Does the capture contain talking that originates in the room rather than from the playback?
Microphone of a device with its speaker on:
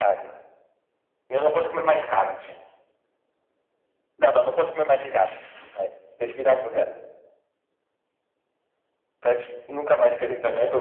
Yes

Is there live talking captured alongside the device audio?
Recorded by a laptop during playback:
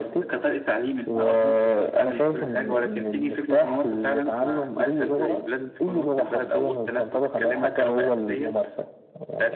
No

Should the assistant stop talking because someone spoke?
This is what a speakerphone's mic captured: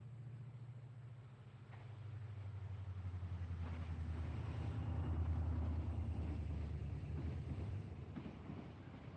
No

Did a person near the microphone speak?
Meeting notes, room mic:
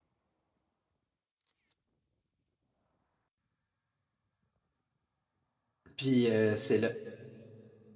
Yes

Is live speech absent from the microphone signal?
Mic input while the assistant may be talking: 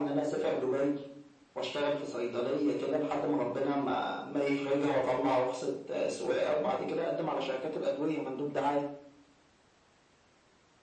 Yes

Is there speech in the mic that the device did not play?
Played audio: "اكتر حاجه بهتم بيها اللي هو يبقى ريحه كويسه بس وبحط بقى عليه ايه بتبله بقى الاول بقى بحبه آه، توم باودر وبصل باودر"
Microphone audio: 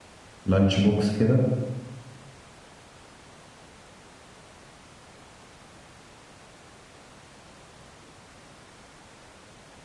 Yes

